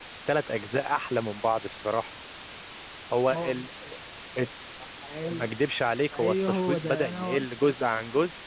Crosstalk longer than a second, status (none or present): present